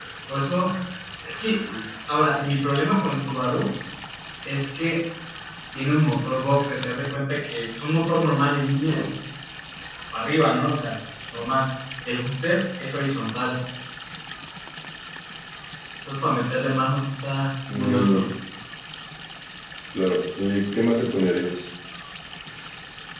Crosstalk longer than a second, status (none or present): none